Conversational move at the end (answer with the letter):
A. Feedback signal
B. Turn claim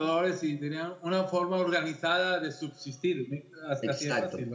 B